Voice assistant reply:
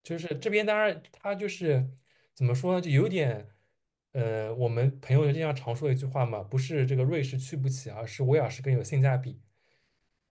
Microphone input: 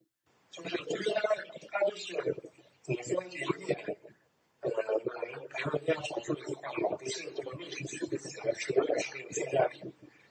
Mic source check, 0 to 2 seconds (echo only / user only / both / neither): echo only